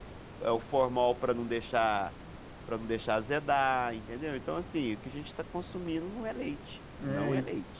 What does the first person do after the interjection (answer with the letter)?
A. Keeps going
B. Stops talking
B